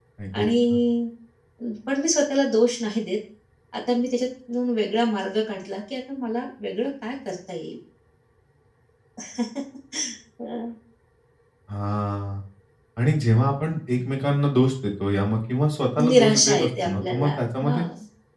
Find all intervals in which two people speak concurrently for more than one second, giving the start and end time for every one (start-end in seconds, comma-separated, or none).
16.1-17.8